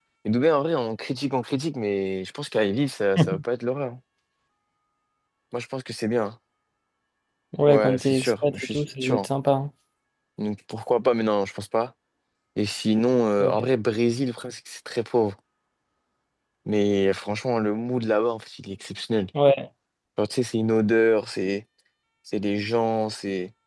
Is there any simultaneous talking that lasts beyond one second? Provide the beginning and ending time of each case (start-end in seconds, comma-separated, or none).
7.7-9.3